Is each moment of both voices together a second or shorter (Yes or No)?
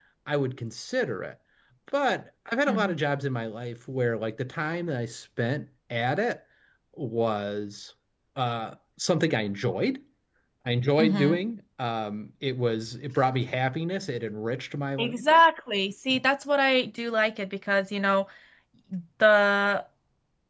Yes